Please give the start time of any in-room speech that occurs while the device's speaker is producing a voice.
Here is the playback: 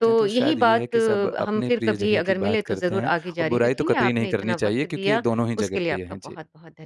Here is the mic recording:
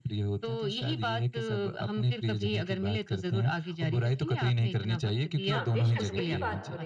5.4 s

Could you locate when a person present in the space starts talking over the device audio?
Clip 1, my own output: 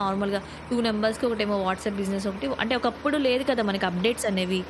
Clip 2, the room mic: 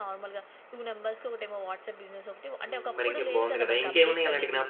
2.7 s

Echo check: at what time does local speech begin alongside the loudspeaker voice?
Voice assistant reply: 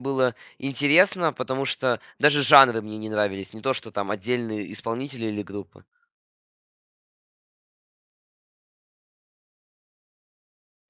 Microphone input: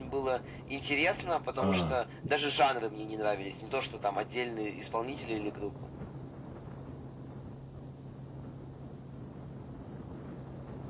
1.6 s

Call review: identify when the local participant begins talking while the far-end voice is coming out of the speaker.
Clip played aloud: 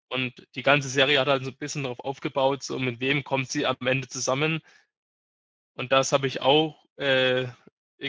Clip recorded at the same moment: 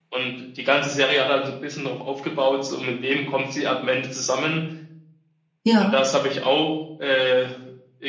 5.7 s

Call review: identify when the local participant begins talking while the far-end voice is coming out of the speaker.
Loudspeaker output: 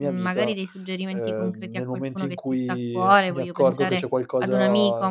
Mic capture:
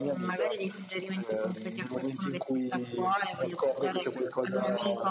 none

